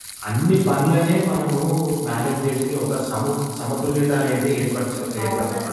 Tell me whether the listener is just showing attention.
No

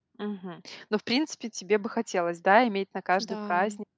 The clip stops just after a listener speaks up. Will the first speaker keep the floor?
Yes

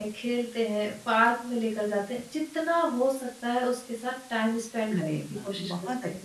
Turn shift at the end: Yes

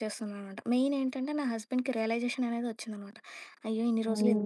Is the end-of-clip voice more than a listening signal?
Yes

